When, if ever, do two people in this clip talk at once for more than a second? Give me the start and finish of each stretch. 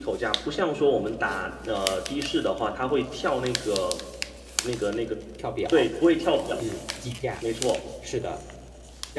none

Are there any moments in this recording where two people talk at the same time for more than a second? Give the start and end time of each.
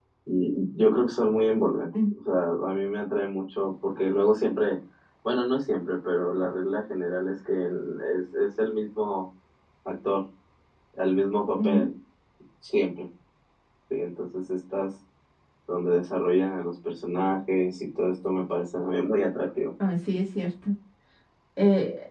none

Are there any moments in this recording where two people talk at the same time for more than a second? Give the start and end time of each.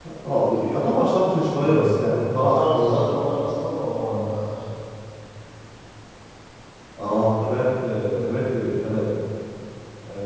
1.6-3.4

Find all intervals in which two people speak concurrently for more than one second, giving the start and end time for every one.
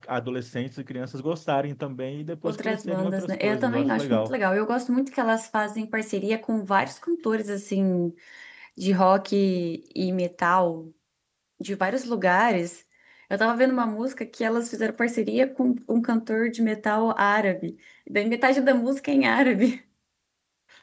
2.5-4.3

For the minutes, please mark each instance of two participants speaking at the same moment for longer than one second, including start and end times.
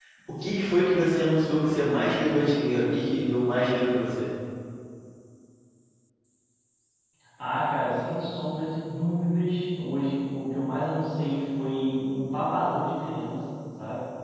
none

